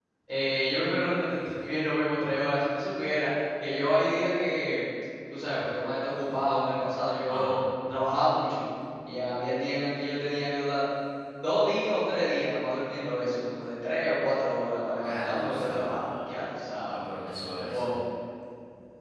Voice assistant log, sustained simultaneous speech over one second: present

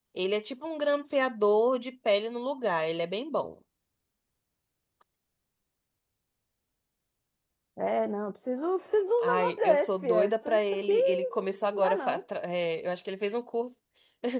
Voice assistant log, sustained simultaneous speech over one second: present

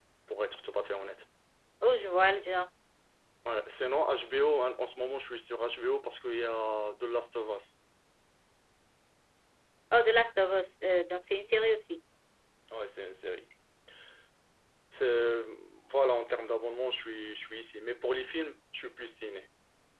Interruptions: none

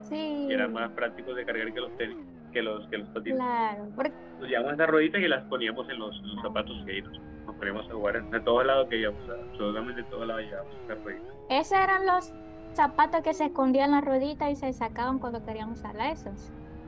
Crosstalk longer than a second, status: none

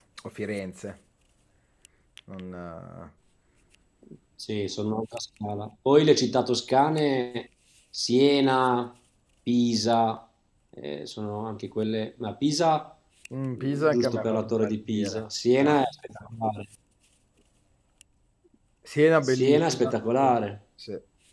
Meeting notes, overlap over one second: present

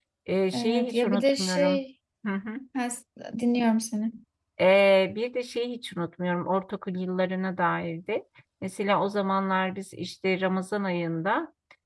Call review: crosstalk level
present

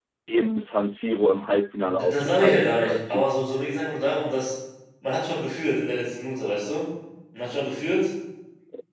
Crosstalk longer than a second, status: present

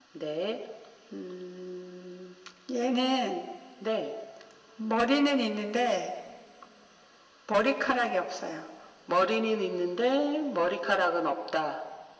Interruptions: none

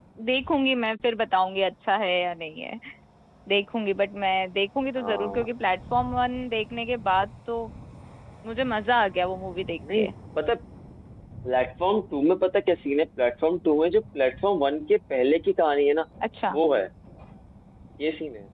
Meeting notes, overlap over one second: none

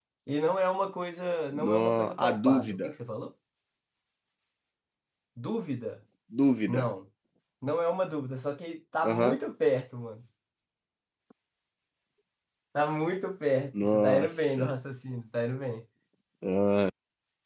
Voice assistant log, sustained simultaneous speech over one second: present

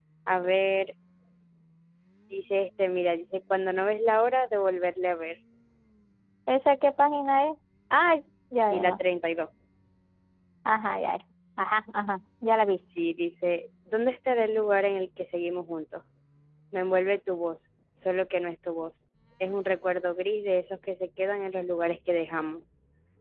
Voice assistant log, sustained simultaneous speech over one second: none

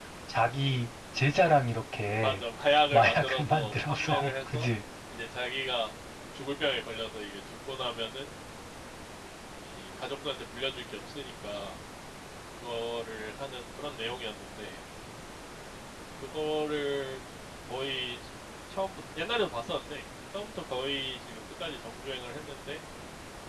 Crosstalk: present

